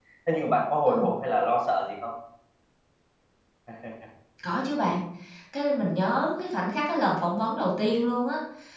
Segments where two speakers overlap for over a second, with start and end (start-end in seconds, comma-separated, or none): none